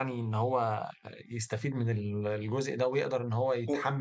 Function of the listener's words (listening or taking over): listening